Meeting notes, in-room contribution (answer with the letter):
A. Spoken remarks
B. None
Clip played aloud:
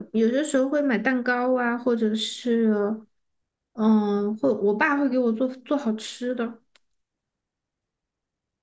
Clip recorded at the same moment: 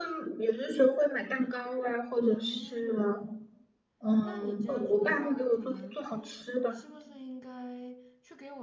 A